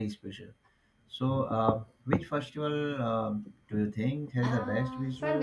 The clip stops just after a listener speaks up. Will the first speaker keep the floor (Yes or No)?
No